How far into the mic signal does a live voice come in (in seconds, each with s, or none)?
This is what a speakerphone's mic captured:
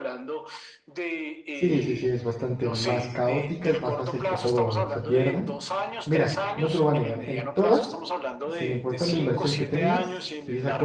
1.5 s